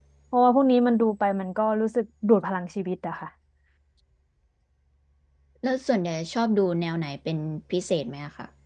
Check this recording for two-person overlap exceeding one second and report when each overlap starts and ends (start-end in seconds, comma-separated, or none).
none